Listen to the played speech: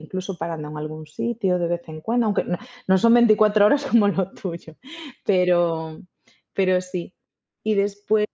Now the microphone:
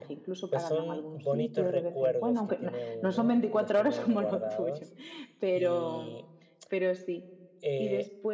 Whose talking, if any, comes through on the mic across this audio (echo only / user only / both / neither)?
both